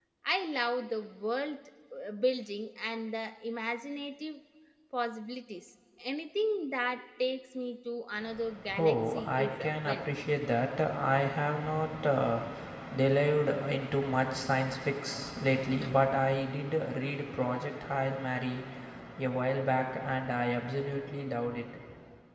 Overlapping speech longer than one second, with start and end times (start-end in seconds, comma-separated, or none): 8.8-10.1